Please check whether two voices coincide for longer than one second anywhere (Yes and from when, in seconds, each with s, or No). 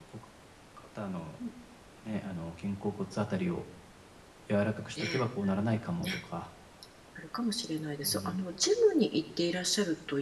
No